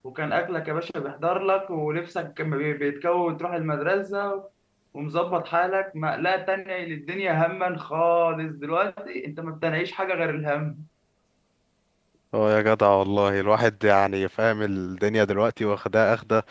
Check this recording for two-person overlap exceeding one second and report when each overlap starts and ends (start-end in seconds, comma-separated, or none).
none